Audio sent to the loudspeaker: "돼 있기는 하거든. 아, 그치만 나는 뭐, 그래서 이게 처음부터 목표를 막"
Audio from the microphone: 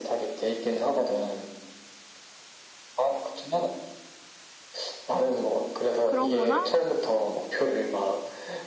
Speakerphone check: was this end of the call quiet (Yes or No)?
No